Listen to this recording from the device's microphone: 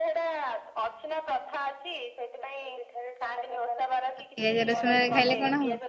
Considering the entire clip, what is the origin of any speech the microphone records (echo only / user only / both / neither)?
both